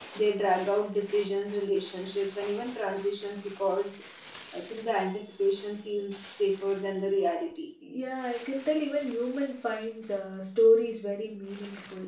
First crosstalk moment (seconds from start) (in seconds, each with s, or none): none